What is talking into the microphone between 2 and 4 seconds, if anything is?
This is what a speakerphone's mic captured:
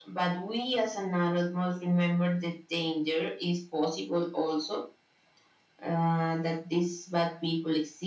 echo only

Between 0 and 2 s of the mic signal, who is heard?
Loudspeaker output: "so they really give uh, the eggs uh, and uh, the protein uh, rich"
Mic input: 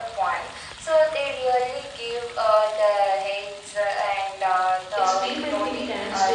echo only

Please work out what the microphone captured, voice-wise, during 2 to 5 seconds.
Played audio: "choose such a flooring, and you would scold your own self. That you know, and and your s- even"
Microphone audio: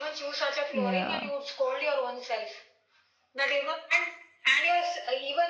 echo only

